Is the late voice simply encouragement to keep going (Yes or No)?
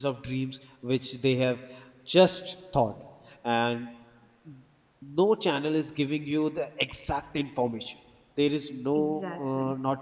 Yes